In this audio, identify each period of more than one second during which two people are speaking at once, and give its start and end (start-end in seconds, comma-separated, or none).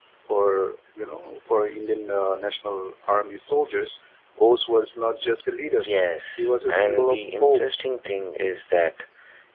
6.4-7.6